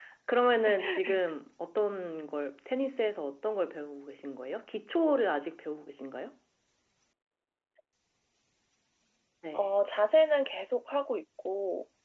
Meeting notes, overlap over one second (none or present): none